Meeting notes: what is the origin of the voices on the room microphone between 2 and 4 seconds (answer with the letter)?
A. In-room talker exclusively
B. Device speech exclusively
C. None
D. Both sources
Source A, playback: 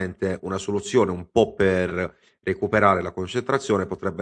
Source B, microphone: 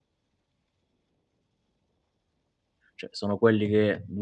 A